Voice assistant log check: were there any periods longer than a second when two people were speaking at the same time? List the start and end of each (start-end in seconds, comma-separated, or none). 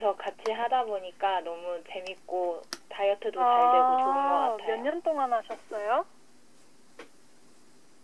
3.4-4.9